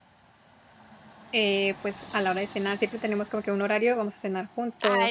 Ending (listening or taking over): taking over